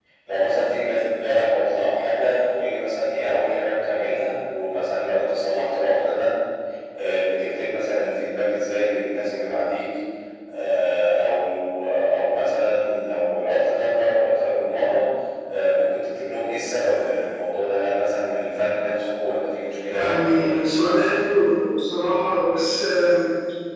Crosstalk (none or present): present